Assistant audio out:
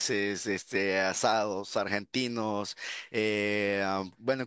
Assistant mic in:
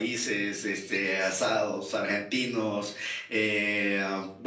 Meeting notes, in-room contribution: none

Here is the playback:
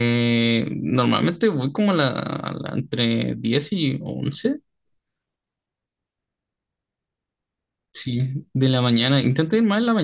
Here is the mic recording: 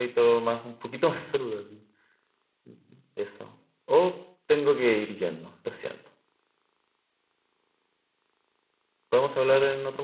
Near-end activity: present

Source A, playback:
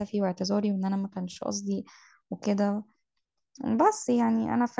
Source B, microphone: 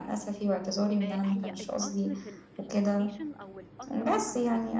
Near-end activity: present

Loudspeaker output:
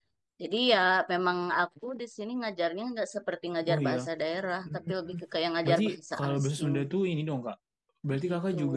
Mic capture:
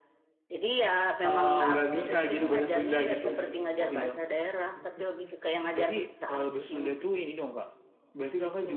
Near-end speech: present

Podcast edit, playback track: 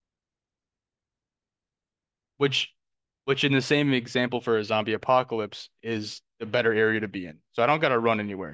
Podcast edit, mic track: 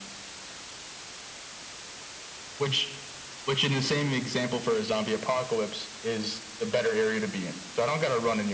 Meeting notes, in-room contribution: none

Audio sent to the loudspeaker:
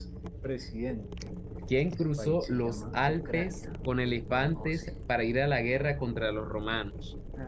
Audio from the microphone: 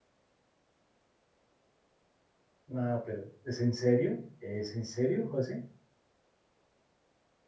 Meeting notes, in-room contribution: present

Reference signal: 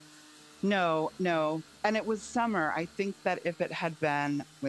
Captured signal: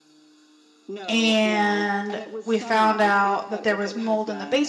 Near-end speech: present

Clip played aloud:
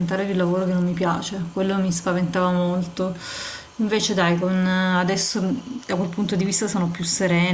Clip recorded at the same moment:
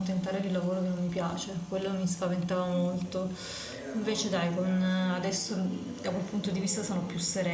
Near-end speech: present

